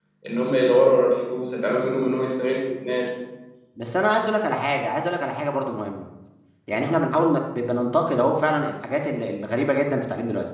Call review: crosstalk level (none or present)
none